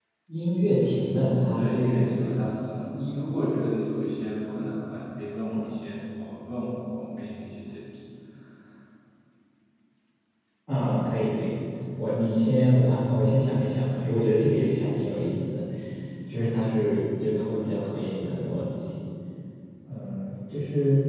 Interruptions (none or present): present